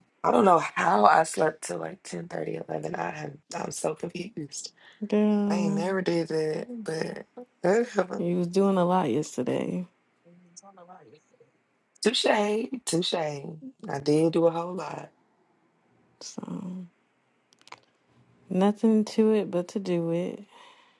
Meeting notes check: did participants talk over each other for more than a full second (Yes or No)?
No